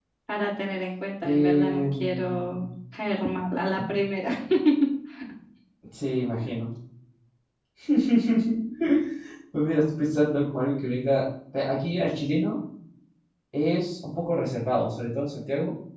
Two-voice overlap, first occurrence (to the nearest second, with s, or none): 1 s